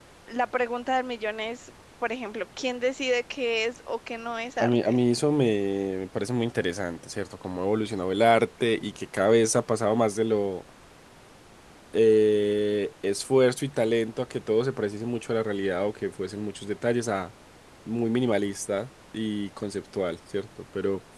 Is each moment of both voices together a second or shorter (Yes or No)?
Yes